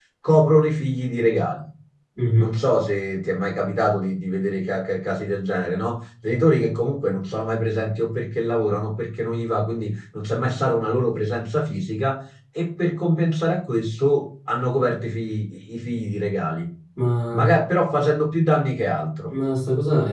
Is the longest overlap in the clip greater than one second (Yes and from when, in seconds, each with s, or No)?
No